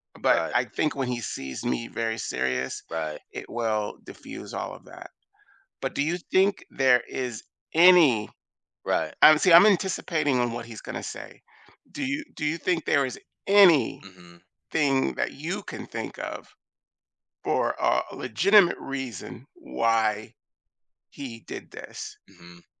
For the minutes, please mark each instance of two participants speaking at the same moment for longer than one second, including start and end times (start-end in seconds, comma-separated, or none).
none